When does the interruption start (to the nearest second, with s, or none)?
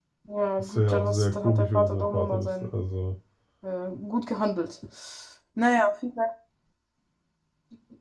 1 s